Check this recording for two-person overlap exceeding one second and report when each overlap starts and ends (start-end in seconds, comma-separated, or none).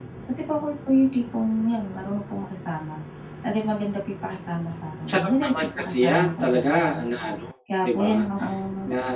5.1-7.0